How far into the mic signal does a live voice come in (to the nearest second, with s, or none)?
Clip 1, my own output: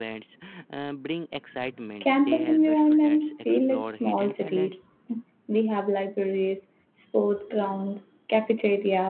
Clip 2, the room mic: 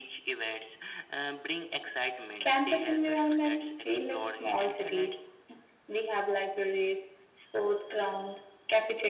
none